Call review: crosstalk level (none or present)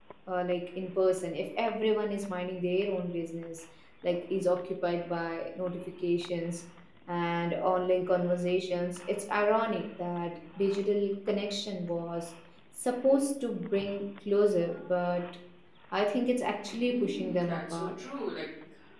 present